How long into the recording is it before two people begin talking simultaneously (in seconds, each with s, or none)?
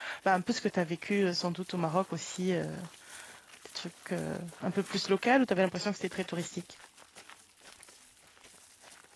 none